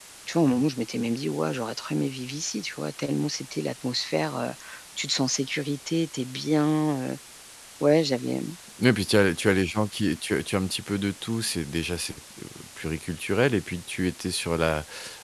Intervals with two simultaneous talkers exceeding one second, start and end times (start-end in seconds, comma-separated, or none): none